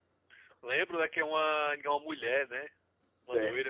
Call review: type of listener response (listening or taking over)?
taking over